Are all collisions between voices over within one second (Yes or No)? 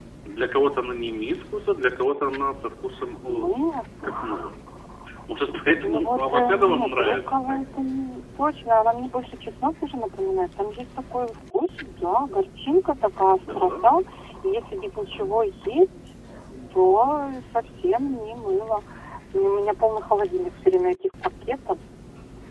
No